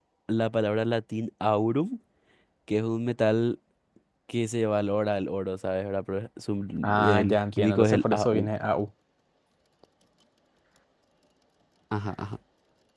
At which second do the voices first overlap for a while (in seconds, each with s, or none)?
6.8 s